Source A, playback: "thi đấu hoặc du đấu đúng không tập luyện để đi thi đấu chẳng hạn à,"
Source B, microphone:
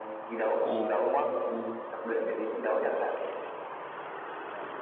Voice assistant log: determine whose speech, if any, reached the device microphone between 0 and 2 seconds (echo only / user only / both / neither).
both